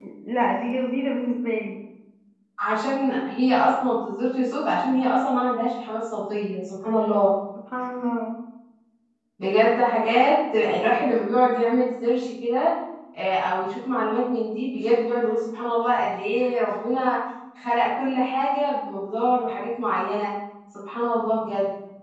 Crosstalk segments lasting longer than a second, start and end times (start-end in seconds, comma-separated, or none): none